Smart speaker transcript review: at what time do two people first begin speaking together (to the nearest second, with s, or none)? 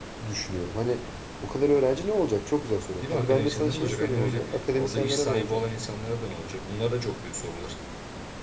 3 s